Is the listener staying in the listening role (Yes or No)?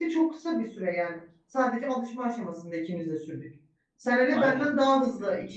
Yes